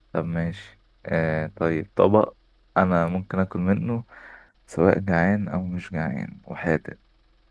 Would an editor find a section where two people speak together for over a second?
No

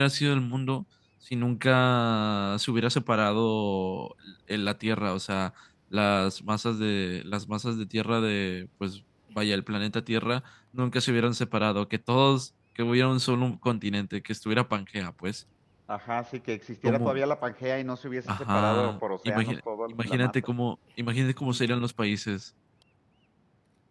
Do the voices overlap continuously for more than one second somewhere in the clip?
Yes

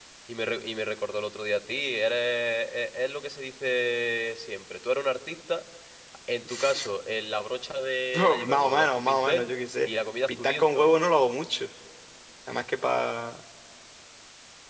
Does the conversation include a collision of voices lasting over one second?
Yes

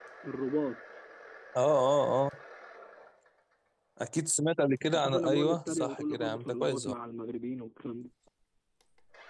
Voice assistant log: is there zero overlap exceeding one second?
No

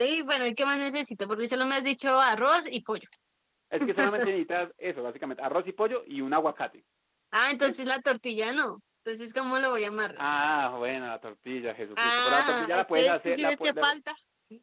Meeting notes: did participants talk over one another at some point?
Yes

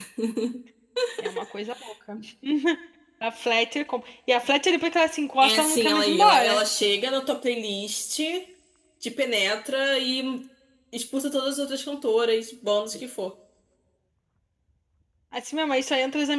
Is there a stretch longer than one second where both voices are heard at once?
Yes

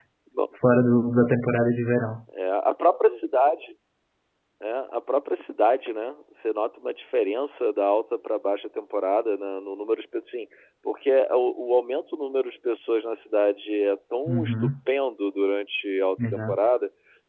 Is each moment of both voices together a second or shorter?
Yes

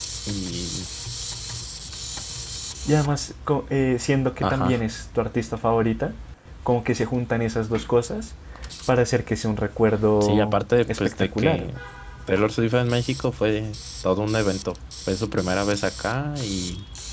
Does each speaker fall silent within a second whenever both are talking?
No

